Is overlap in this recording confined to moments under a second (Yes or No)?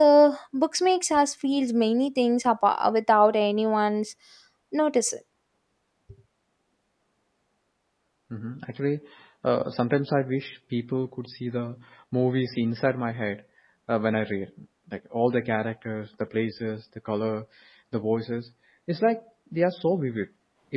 Yes